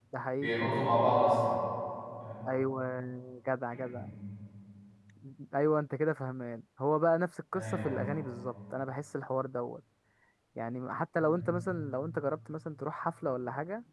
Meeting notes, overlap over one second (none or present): none